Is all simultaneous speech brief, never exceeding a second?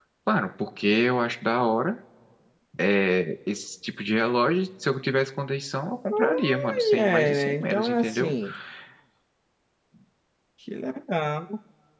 No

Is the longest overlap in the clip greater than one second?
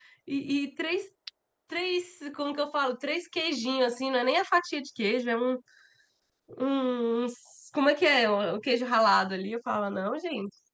No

